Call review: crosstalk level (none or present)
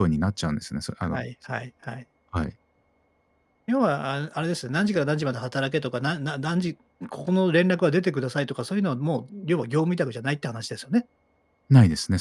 none